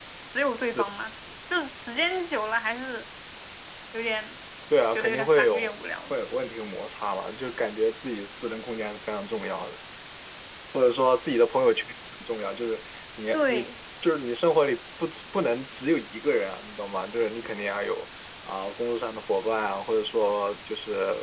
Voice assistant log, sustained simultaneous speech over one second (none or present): present